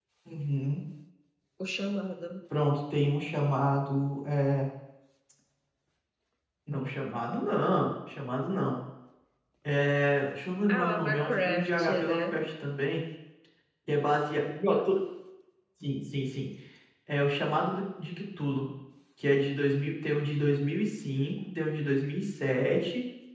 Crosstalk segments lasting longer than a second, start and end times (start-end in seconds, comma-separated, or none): 10.7-12.4